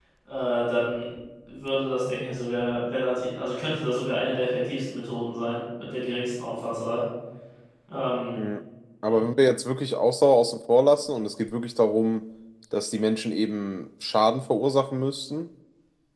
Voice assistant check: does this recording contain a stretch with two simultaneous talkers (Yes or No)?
No